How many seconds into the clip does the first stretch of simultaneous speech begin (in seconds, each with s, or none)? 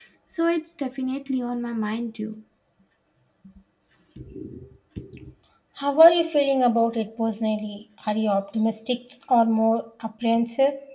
none